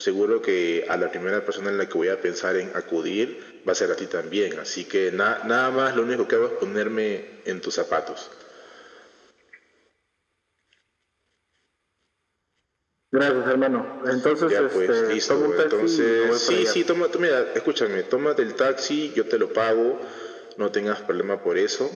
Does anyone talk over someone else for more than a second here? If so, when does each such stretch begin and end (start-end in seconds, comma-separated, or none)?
14.4-16.8